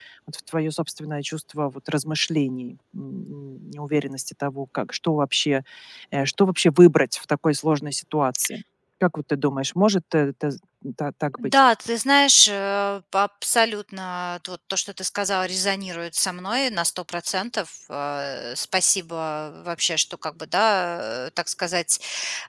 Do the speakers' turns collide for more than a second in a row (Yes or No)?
No